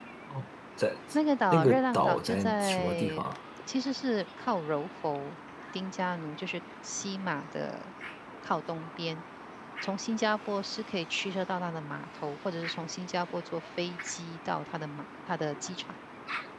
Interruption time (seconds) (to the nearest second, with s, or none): 2 s